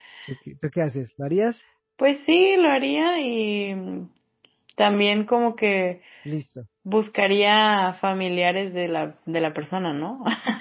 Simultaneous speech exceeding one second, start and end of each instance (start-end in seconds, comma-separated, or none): none